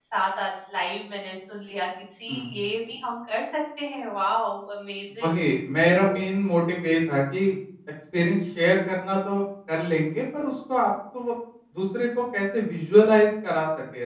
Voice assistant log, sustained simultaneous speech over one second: none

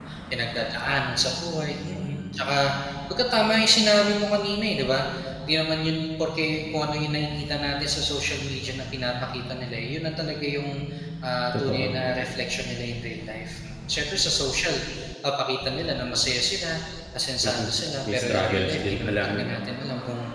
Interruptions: present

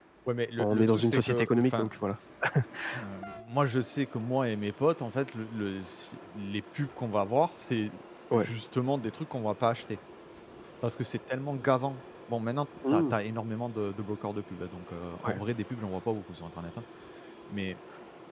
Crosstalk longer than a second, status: present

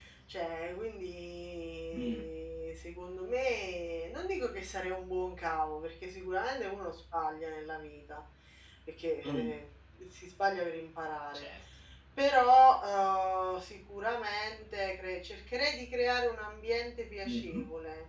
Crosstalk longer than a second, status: none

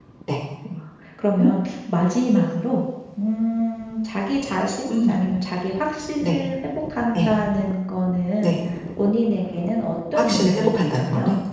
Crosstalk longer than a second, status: present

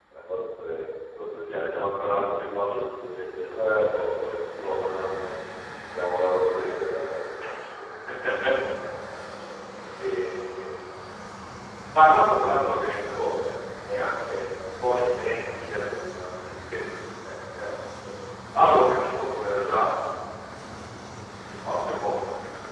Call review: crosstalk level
present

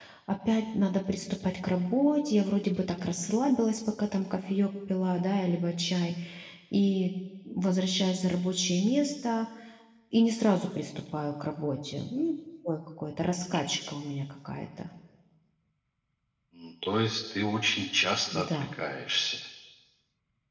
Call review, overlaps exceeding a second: none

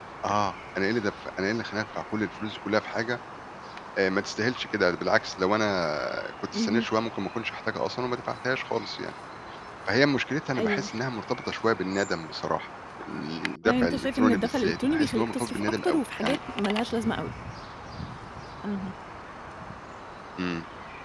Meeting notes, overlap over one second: present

